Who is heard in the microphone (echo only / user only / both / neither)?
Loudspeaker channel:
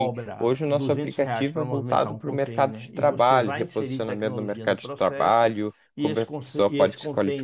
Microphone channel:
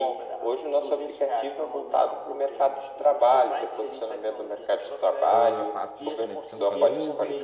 both